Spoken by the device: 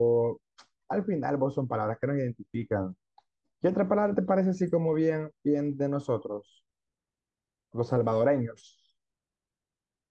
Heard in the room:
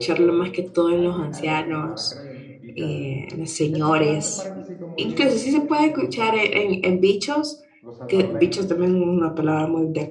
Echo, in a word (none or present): present